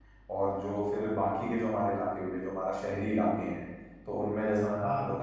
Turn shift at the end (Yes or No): No